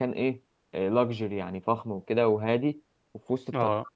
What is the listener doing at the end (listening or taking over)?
listening